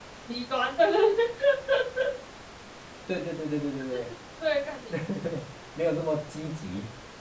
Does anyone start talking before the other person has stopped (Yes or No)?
No